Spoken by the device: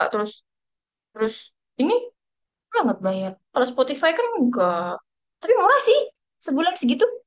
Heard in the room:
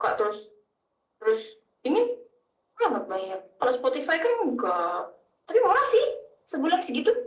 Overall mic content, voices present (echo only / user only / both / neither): echo only